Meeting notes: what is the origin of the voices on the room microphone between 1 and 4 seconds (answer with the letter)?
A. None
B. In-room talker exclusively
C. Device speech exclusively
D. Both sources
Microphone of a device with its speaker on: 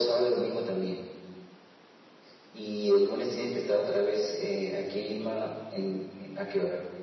C